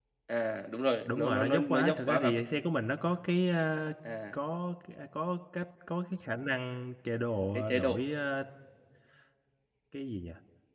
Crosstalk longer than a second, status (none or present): present